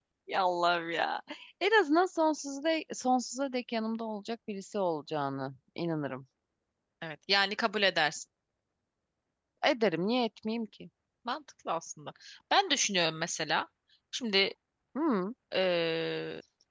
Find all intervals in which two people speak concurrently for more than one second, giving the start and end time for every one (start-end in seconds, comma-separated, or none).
none